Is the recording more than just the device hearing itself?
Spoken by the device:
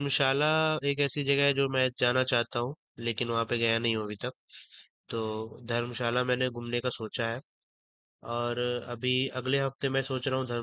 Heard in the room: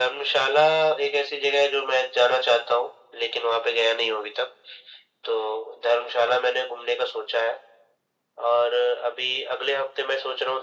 No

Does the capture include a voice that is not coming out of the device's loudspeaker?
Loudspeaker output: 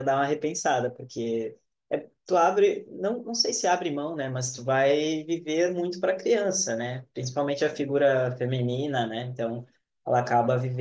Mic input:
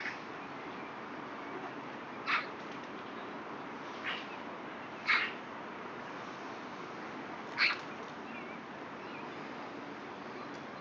No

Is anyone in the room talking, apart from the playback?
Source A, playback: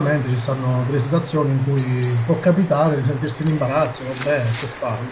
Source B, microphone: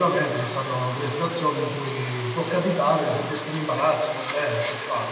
No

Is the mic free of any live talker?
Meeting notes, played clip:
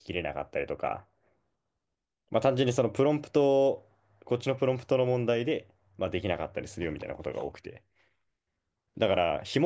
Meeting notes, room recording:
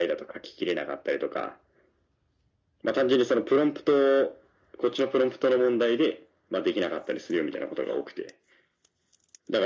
Yes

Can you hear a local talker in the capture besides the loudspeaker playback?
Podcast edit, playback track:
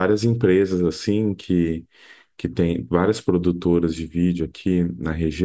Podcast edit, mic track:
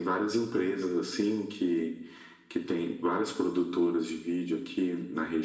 No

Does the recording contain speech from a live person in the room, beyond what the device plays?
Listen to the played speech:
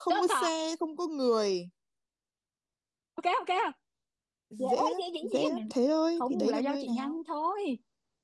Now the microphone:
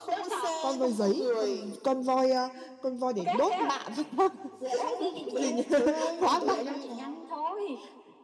Yes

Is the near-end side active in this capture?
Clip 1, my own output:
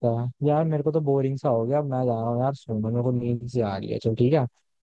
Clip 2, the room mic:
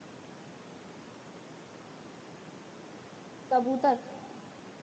Yes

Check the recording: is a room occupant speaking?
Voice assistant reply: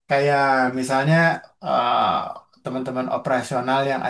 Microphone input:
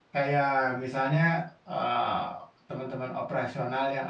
No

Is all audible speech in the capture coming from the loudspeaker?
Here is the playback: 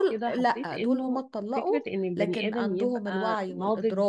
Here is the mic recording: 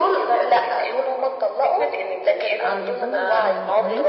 No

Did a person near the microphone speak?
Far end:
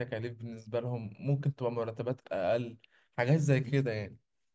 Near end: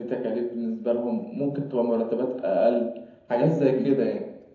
No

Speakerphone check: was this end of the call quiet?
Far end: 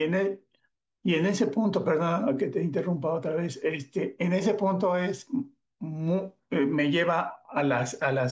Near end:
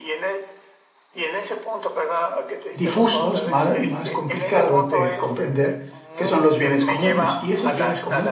No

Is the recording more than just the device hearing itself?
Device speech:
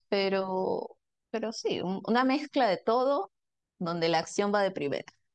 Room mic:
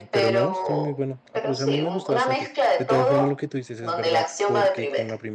Yes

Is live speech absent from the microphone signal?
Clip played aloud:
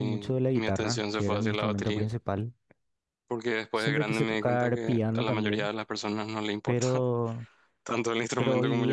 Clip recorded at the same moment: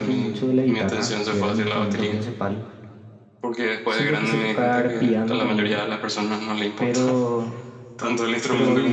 Yes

